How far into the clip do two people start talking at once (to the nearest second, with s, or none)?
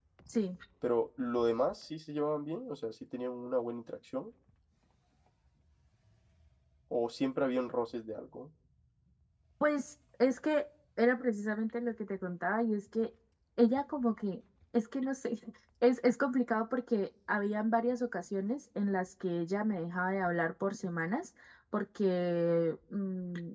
none